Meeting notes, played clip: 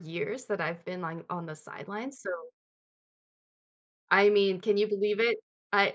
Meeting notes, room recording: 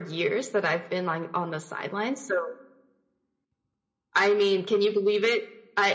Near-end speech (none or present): none